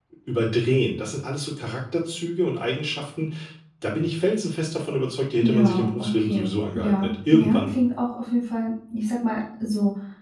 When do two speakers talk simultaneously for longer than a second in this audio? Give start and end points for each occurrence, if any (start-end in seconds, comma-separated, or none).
5.4-7.7